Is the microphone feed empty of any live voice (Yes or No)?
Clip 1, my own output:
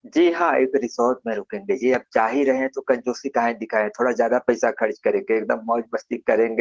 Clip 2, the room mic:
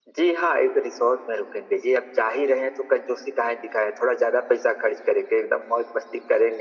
Yes